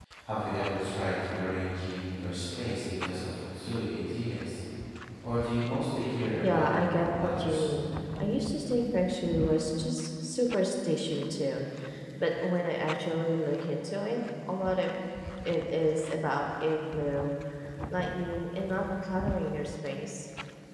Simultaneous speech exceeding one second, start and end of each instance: 6.5-7.7

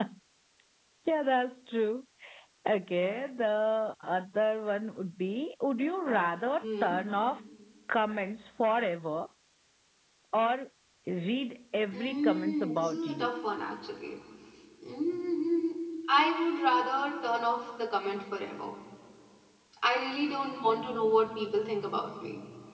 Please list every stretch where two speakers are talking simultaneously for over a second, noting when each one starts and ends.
11.9-13.3

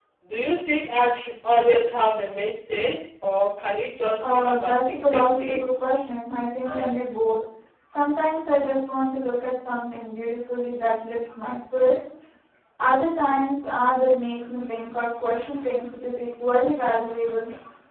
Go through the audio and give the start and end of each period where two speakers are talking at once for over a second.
4.2-5.8

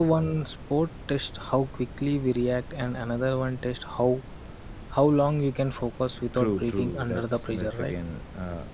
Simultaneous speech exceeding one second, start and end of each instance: 6.4-7.9

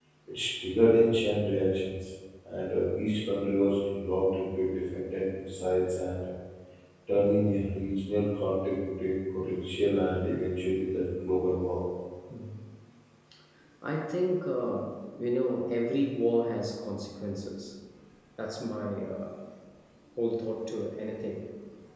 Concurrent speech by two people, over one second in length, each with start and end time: none

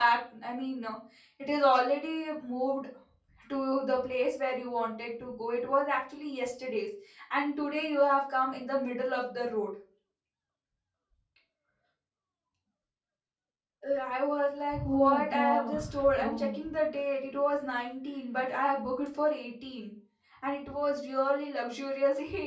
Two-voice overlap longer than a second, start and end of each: 14.8-16.6

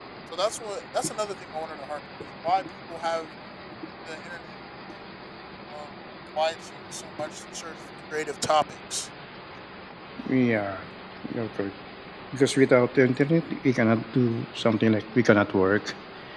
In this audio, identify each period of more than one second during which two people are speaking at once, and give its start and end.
none

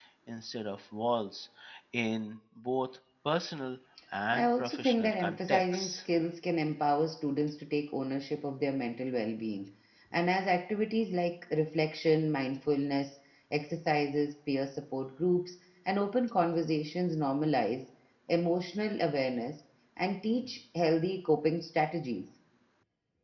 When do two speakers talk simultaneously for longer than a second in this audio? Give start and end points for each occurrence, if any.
4.3-6.0

